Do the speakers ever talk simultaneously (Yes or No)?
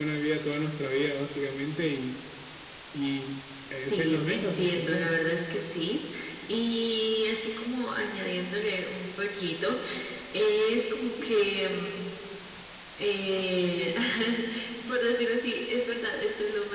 Yes